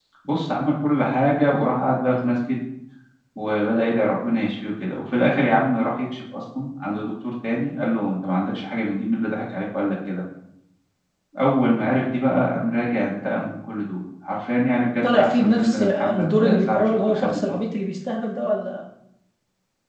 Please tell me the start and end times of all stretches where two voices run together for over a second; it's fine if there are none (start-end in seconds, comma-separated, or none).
15.0-17.6